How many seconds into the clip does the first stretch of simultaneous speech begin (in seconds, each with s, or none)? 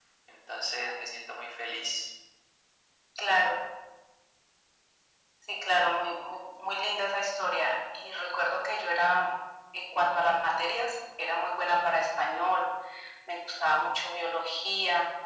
none